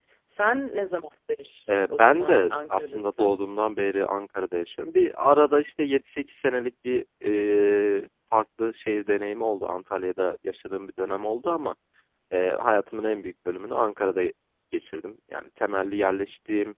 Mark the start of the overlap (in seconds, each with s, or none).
2.0 s